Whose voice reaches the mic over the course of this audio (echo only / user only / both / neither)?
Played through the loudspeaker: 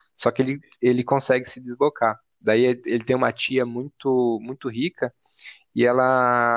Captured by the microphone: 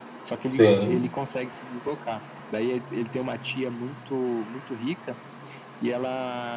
both